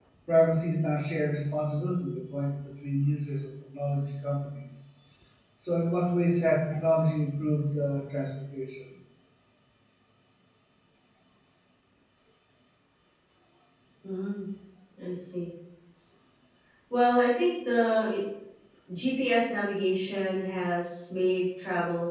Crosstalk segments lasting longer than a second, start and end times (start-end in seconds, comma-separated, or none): none